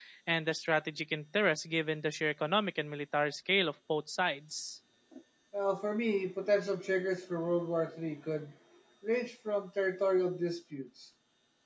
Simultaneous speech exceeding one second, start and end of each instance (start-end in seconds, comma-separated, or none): none